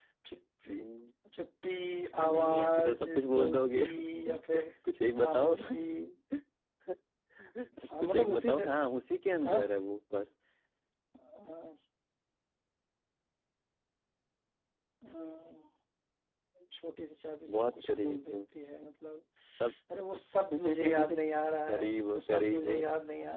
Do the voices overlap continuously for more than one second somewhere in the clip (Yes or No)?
Yes